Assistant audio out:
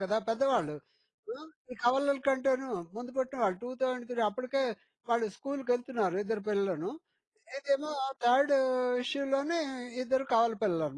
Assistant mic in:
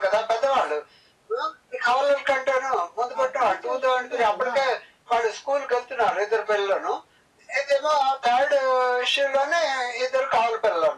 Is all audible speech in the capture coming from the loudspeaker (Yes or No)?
No